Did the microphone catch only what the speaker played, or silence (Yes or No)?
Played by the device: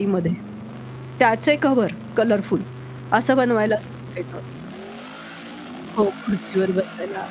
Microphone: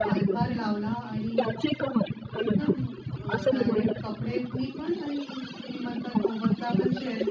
No